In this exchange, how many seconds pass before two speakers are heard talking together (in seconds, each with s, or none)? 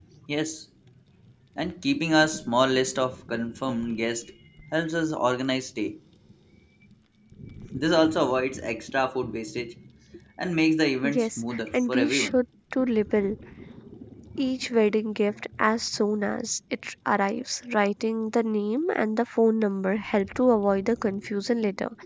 11.1 s